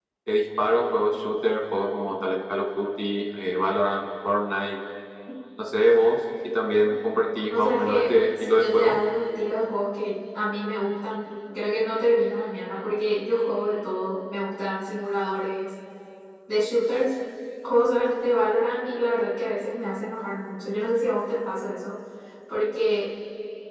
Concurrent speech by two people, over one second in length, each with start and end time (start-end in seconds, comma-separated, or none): 7.5-9.0